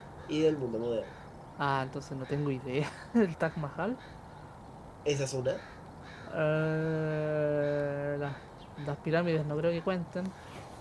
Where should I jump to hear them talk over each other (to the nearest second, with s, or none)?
none